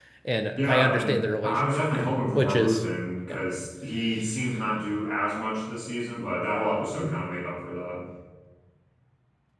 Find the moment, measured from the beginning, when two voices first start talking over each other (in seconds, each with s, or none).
0.6 s